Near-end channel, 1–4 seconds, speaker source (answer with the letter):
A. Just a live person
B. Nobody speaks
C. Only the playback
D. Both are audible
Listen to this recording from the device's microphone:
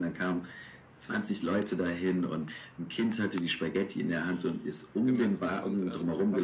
C